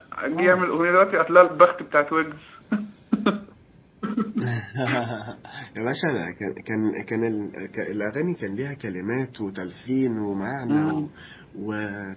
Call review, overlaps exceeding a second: none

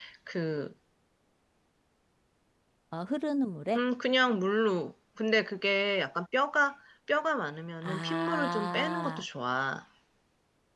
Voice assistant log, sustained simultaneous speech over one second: present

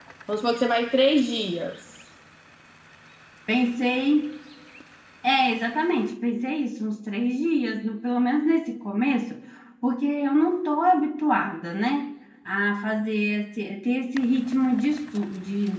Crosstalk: none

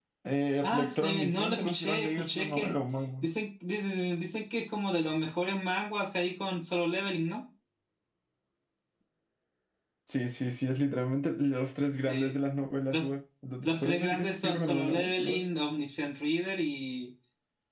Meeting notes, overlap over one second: present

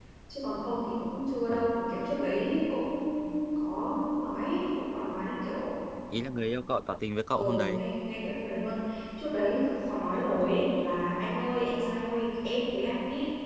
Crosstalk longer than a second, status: none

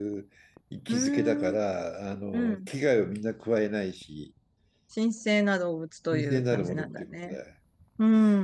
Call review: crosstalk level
present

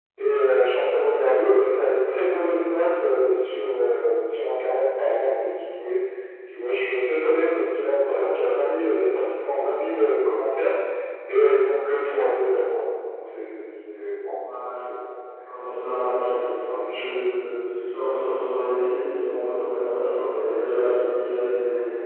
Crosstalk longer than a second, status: none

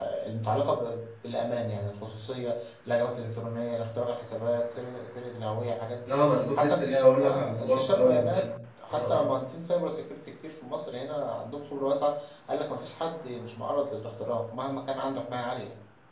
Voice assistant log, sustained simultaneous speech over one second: present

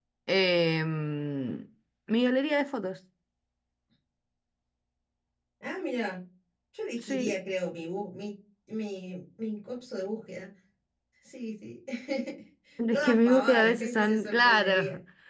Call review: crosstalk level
present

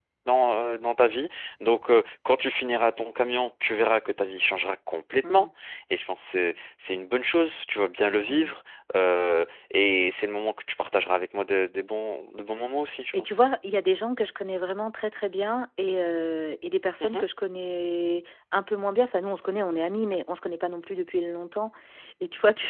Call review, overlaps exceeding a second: none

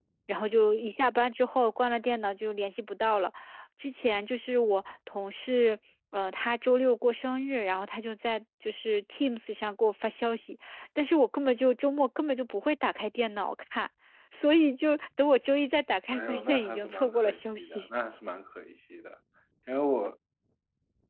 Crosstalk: present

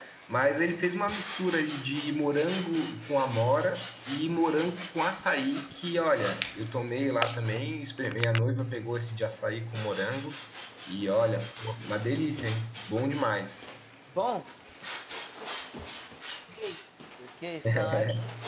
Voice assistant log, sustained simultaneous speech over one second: none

